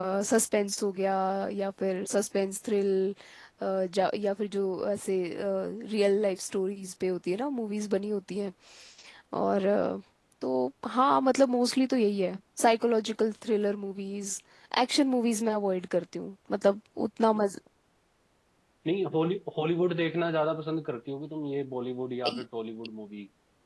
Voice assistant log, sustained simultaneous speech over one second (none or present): none